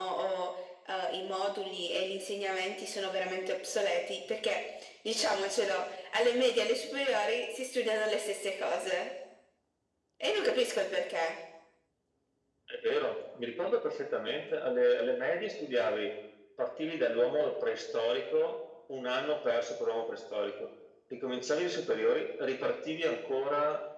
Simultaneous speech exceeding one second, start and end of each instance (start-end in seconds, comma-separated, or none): none